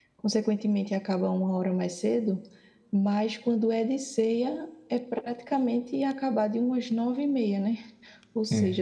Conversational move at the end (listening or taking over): listening